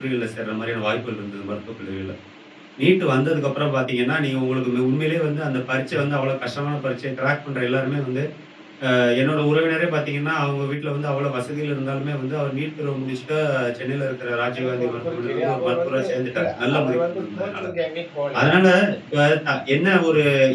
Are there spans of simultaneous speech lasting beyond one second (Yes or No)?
Yes